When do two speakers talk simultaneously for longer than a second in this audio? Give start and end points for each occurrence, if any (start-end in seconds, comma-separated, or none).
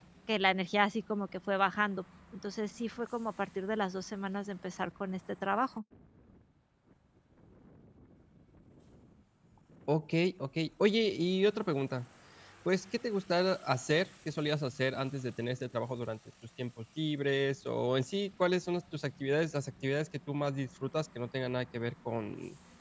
none